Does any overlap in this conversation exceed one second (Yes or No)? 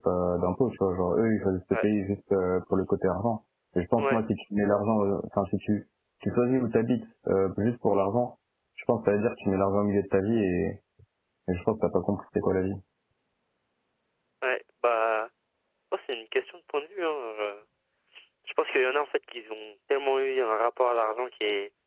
No